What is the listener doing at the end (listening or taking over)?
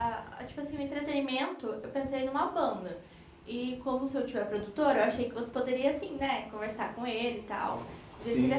taking over